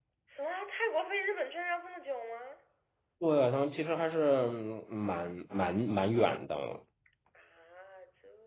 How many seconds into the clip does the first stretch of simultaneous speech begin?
none

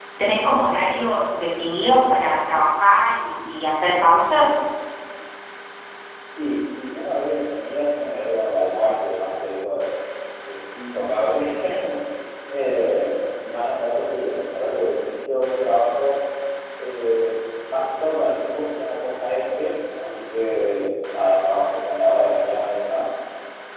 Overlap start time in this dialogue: none

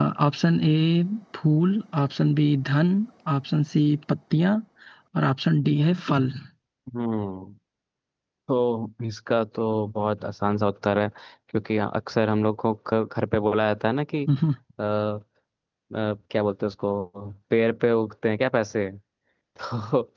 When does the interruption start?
none

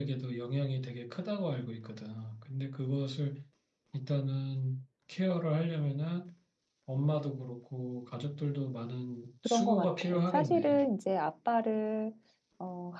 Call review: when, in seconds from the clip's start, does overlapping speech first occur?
9.4 s

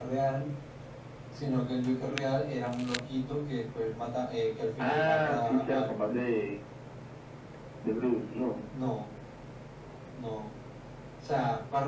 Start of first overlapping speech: 4.8 s

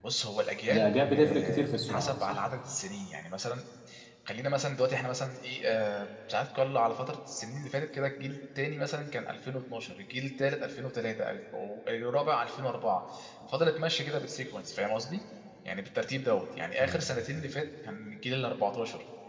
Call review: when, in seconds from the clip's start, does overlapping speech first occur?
0.7 s

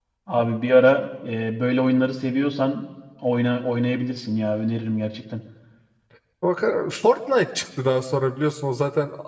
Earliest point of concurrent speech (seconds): none

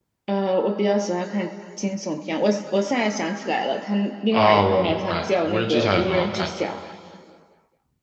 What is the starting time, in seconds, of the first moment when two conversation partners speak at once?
4.3 s

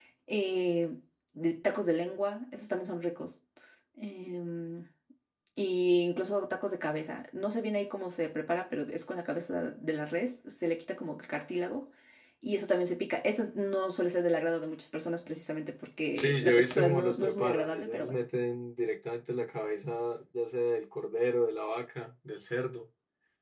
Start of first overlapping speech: 16.1 s

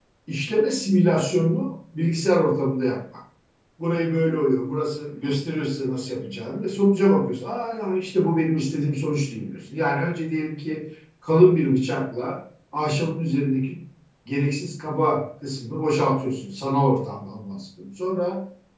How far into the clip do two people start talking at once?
none

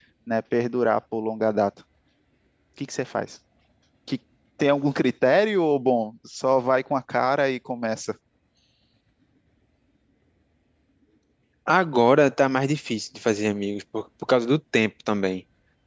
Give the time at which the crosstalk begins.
none

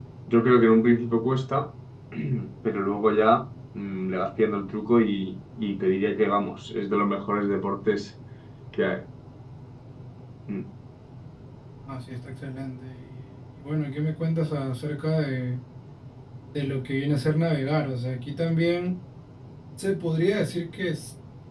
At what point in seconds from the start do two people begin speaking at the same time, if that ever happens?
none

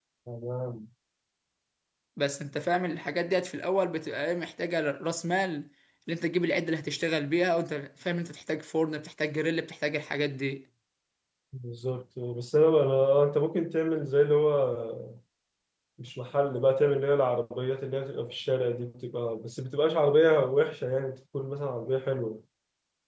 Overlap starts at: none

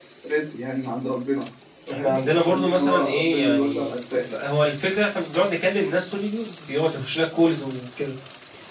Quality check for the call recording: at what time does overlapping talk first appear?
1.9 s

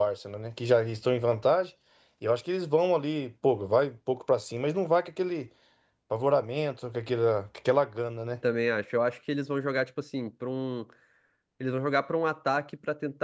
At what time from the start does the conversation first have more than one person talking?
none

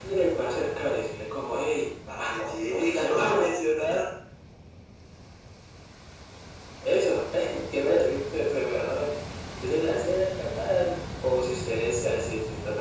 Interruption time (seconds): 2.1 s

